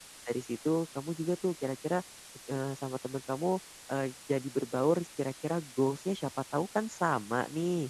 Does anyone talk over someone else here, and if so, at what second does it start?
none

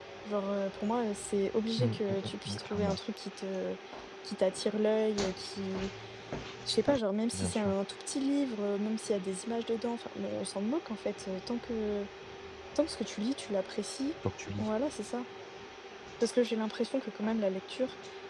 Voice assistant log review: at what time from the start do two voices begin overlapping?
1.8 s

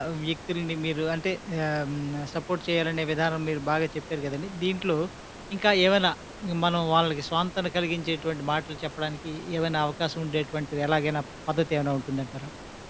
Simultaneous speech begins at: none

